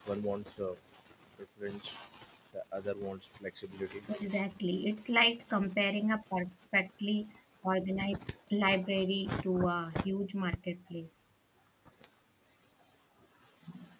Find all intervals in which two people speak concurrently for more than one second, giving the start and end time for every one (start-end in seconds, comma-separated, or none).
none